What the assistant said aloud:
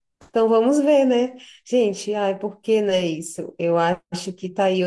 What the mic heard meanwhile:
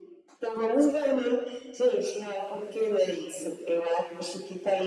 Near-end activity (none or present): none